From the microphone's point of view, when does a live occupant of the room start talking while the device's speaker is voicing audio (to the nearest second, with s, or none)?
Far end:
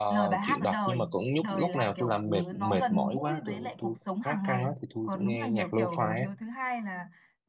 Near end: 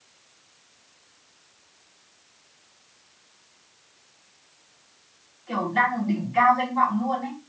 5 s